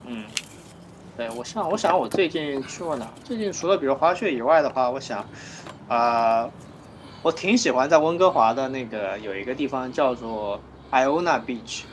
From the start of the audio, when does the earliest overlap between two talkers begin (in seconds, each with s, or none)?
none